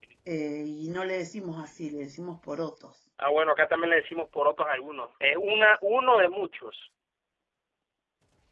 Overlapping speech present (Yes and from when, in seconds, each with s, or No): No